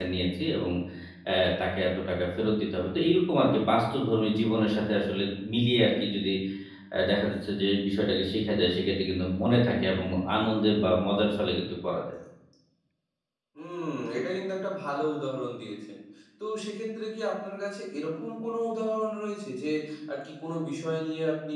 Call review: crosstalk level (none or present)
none